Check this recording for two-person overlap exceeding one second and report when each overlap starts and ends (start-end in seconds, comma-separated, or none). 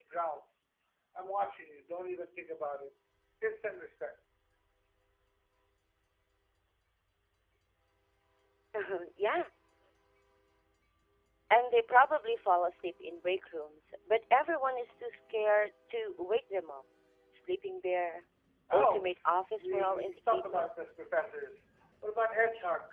18.7-20.7